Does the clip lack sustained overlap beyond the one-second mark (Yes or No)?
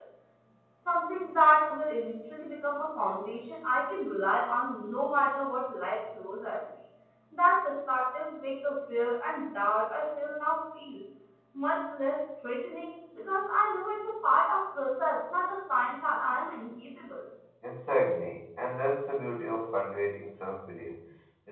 Yes